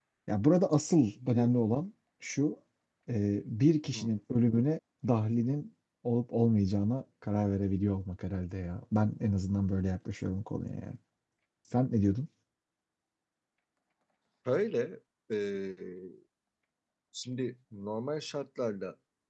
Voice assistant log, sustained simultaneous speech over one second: none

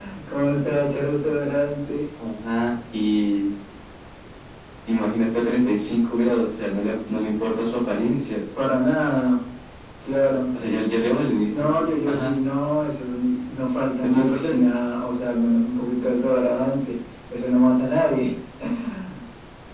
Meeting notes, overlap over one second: none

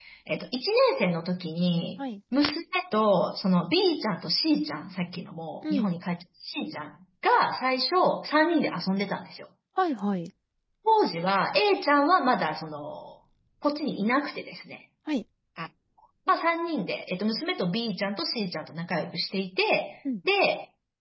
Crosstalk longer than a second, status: none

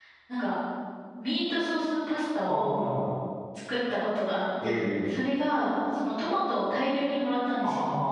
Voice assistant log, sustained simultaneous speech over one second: none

